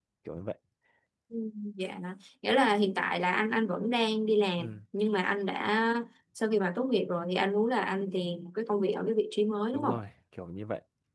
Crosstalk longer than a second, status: none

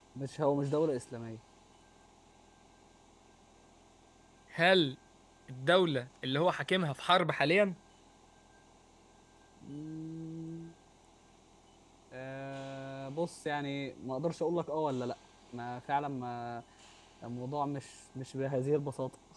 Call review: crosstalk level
none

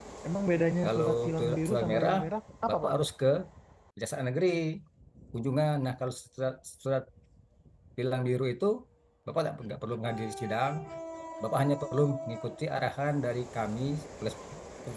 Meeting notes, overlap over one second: present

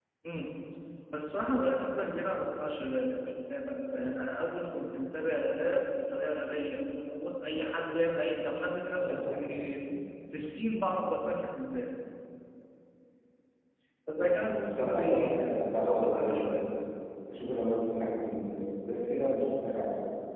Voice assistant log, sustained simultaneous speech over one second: present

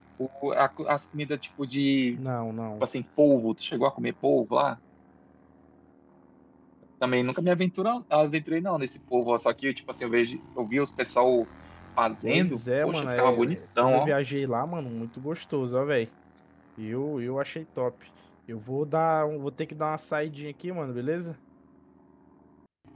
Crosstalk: present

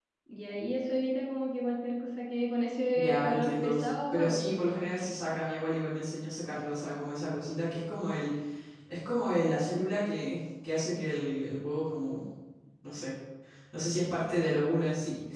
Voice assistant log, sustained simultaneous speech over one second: present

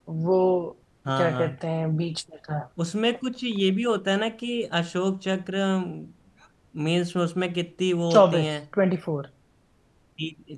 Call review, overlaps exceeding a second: none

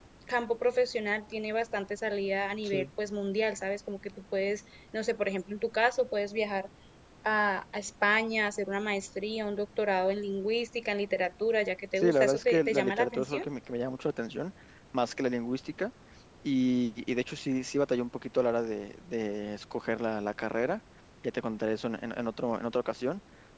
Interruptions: present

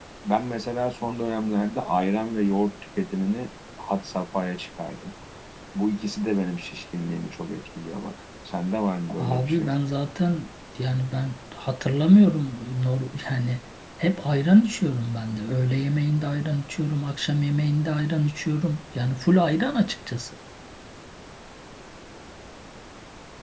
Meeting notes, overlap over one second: none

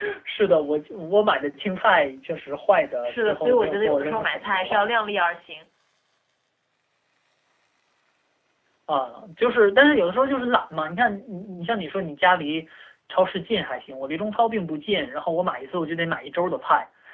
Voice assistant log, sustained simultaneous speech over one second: present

